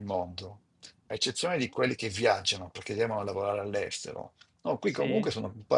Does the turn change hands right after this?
No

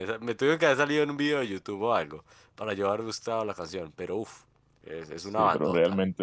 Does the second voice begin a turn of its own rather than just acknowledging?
Yes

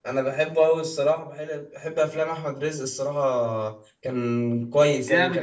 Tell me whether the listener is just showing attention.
No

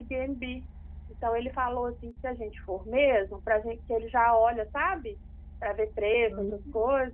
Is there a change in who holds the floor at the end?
No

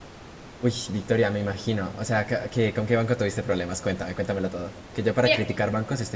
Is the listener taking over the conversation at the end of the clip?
No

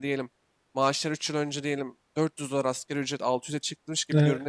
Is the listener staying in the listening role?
Yes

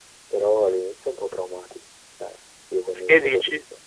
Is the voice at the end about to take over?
No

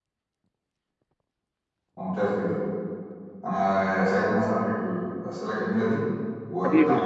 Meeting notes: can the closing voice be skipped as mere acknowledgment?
No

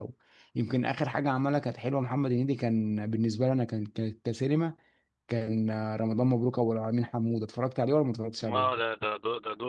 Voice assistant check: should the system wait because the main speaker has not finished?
No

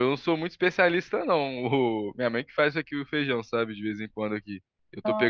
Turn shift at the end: No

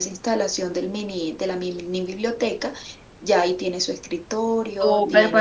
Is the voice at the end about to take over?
Yes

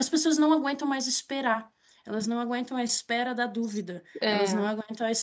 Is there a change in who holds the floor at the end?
No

